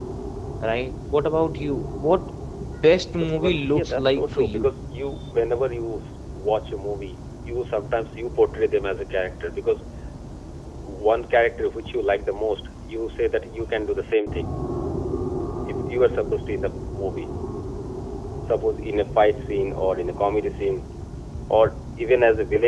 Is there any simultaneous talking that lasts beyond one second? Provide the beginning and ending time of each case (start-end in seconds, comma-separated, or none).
3.1-4.6